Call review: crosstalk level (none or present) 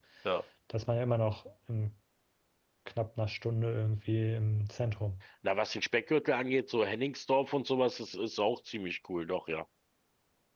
none